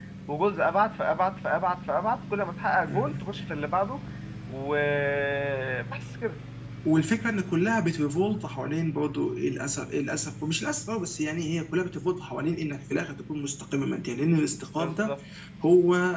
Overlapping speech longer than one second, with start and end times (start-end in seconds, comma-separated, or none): none